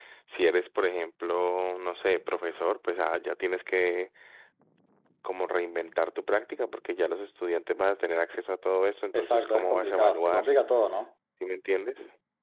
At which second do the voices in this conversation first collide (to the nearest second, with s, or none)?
9 s